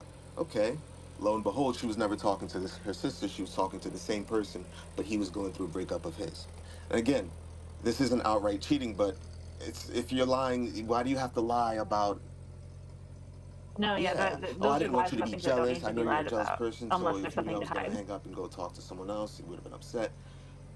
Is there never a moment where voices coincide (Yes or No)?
No